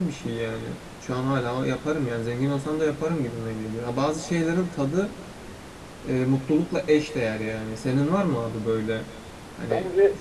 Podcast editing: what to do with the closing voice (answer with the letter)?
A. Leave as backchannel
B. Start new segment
B